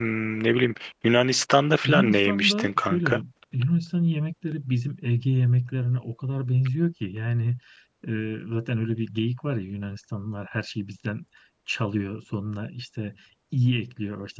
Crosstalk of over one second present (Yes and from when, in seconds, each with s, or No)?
Yes, from 1.8 s